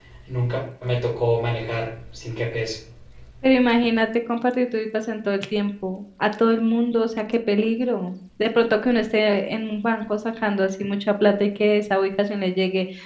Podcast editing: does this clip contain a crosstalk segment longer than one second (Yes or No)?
No